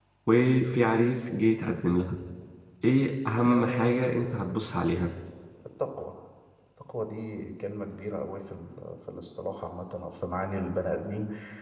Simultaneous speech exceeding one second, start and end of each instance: 3.5-4.8

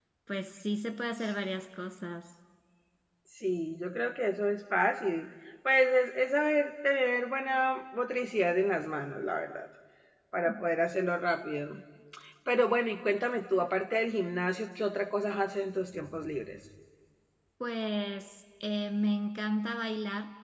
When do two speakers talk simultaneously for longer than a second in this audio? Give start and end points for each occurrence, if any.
none

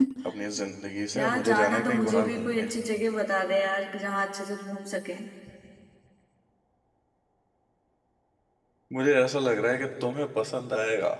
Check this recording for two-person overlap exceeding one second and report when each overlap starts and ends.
1.1-2.7

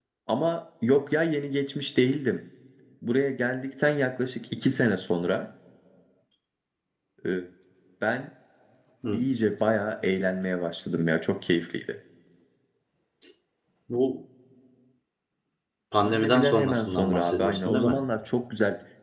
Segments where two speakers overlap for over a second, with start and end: 16.0-18.0

